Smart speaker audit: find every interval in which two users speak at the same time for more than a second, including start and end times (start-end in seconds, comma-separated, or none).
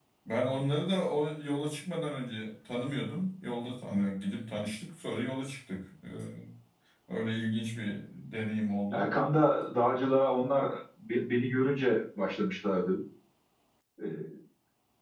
none